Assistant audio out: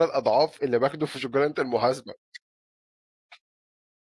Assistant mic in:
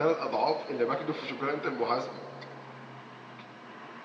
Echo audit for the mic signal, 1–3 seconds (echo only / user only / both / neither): echo only